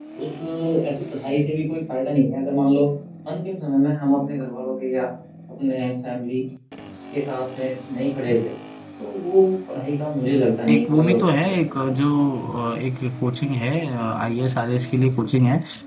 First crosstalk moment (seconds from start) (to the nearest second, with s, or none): 11 s